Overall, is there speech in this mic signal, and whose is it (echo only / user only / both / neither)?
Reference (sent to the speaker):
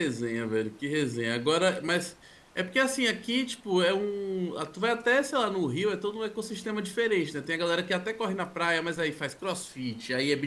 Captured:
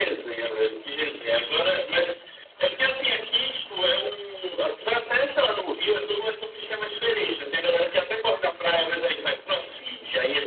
echo only